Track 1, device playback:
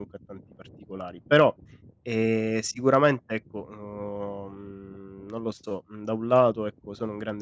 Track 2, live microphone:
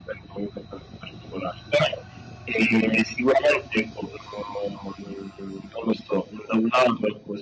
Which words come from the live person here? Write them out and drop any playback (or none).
none